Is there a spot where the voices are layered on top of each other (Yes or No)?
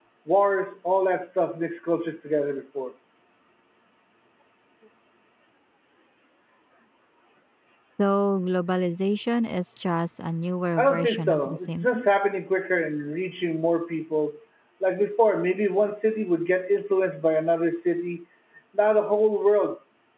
Yes